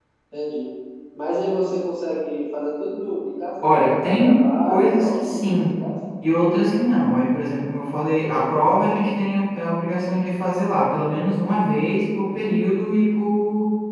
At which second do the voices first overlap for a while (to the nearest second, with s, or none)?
4 s